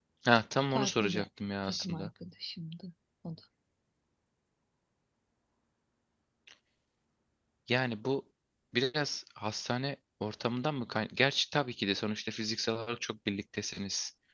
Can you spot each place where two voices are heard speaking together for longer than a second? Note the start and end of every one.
none

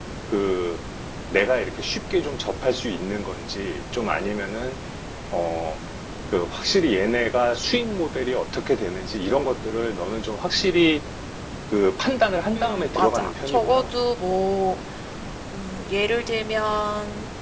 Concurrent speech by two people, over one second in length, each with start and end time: 12.6-13.8

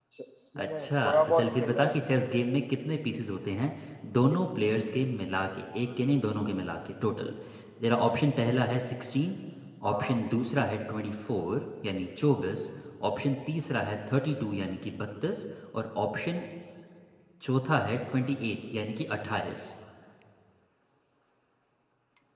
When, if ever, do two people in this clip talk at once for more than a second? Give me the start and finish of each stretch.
0.6-1.9

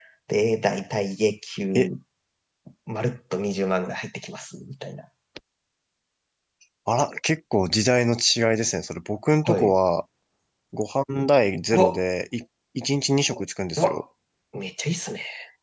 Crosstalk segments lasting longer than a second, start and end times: none

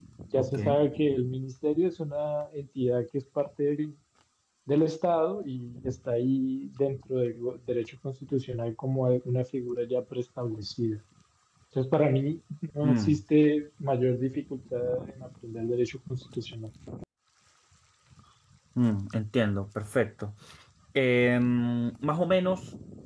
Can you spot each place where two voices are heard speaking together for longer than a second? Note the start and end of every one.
none

